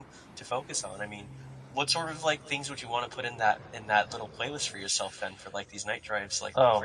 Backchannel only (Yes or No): No